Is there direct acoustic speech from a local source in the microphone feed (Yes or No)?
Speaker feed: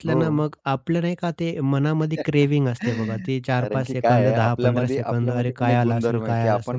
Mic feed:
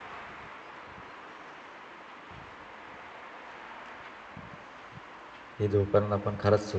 Yes